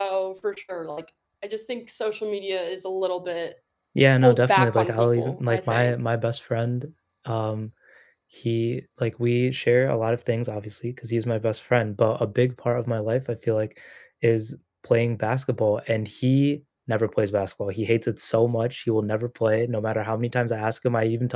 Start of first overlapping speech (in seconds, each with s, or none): 4.2 s